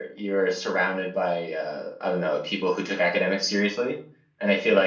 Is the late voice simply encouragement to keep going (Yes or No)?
Yes